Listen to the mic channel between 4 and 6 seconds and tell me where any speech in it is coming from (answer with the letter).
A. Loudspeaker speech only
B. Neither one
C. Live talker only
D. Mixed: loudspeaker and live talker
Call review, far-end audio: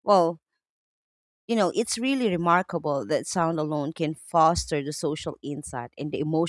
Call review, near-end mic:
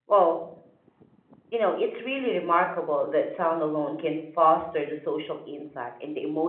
A